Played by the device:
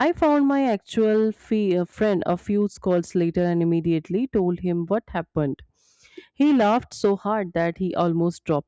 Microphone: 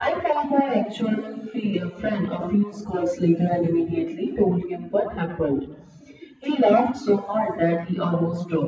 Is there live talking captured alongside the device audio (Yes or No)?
No